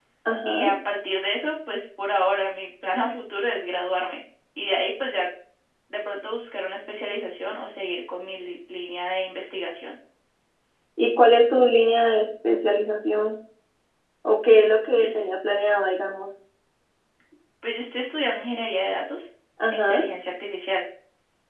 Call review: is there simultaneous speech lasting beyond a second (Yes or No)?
No